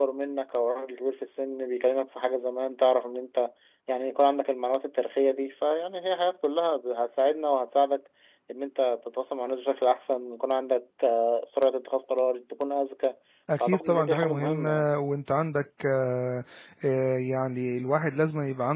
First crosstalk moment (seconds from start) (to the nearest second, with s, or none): 14 s